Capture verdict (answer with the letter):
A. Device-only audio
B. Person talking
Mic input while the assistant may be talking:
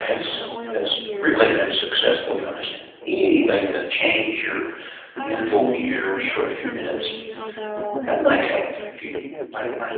B